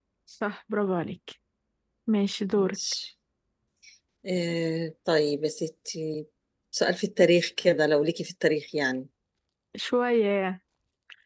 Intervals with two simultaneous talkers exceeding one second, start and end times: none

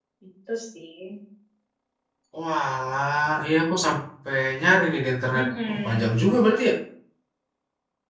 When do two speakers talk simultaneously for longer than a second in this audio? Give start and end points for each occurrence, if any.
5.3-6.6

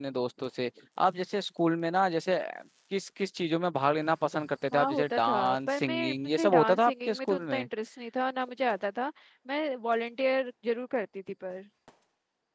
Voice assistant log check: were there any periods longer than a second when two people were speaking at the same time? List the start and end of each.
4.7-7.7

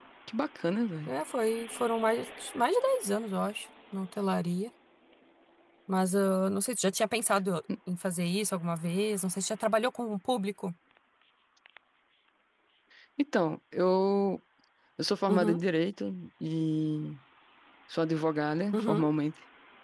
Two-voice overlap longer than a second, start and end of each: none

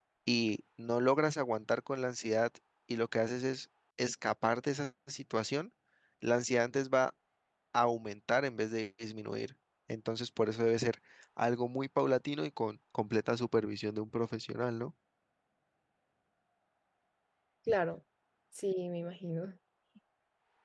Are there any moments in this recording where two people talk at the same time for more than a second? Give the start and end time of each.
none

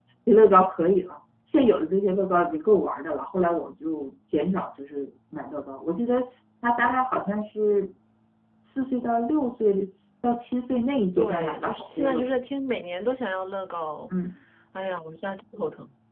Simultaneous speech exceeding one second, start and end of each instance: 11.2-12.4

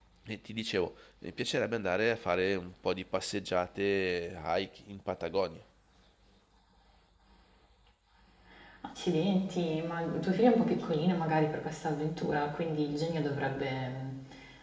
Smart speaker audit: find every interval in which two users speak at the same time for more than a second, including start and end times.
none

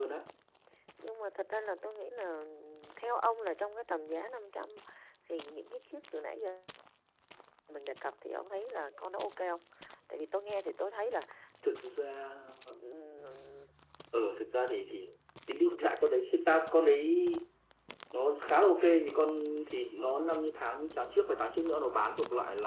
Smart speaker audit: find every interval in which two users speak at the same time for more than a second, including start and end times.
none

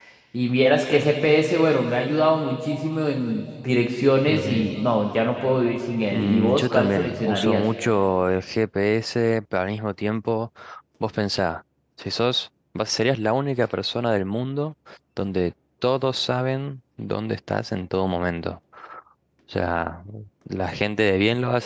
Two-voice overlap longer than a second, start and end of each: 6.1-7.6

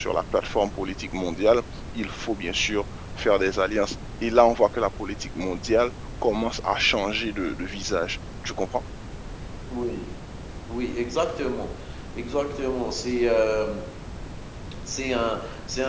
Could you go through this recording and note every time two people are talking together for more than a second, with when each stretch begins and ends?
none

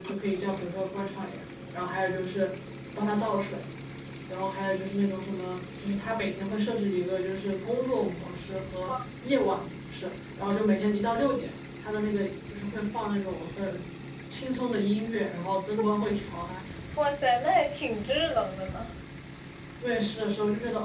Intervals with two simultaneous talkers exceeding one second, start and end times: none

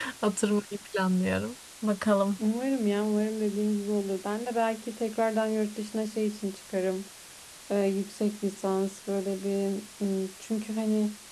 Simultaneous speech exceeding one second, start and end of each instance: none

